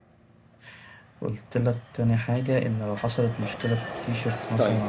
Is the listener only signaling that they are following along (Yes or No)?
No